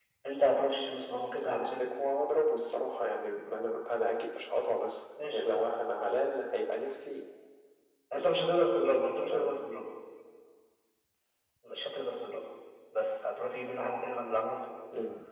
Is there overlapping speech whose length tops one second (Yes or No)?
No